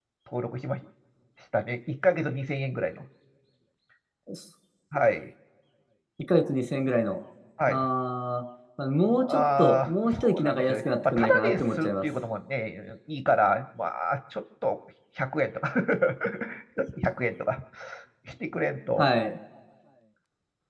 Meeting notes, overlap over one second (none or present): present